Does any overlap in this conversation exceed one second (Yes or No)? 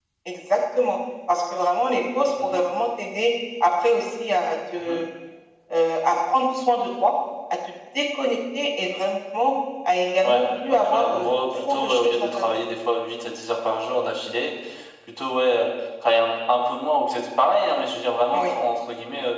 Yes